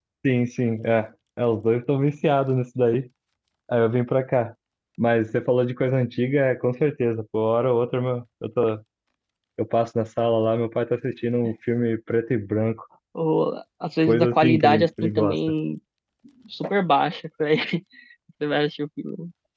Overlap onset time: 14.1 s

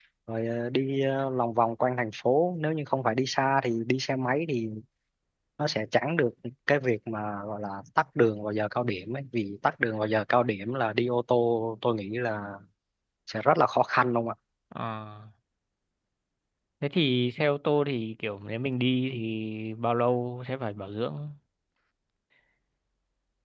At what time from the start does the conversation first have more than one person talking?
none

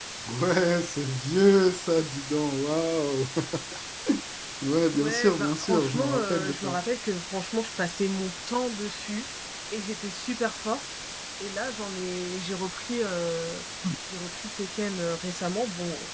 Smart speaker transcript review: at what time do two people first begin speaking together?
4.9 s

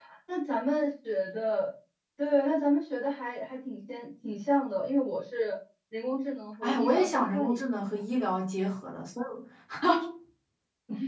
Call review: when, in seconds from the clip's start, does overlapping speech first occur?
6.6 s

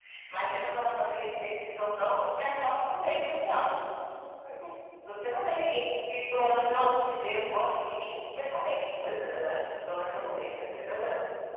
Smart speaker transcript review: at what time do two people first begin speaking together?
none

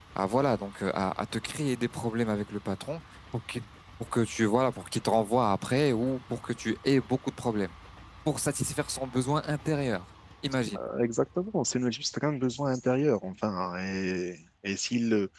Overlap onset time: none

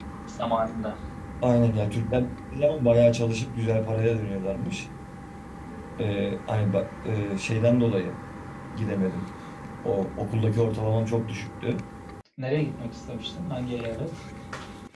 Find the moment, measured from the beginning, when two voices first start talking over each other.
none

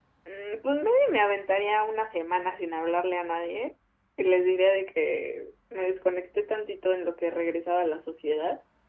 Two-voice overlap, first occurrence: none

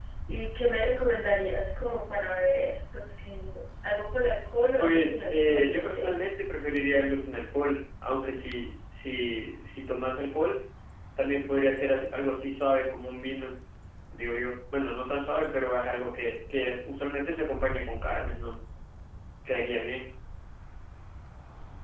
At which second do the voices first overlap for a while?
4.8 s

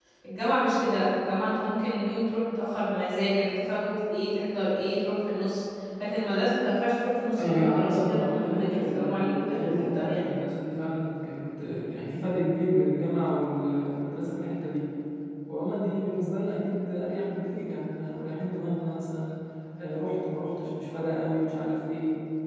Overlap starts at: 7.4 s

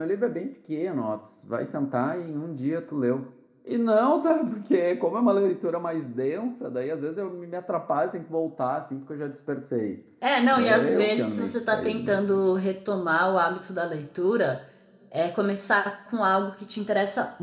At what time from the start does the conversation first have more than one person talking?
10.5 s

